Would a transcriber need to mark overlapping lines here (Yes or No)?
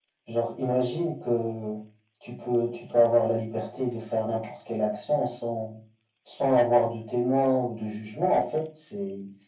No